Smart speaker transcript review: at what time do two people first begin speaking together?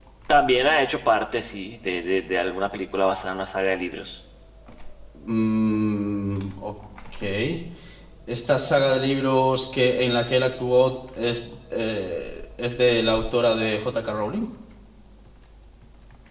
none

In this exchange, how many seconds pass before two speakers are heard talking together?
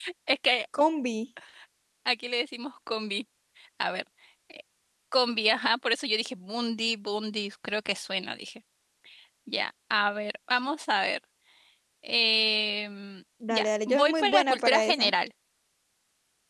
13.4 s

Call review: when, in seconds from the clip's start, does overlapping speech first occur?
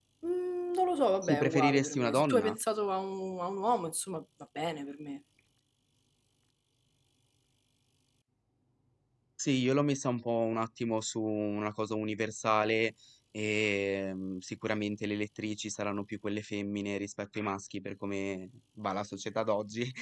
1.2 s

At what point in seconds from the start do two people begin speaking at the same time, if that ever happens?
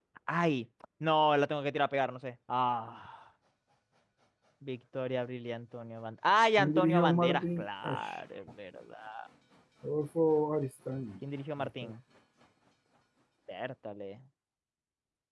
6.6 s

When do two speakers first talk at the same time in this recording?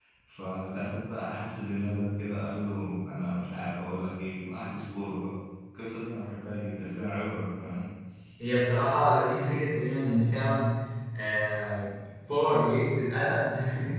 none

